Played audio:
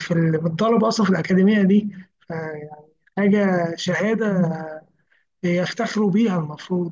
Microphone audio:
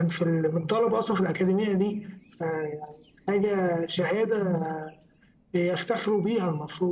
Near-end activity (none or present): none